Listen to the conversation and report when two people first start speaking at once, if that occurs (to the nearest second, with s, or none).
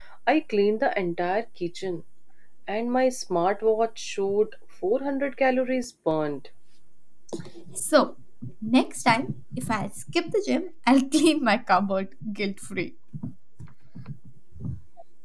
none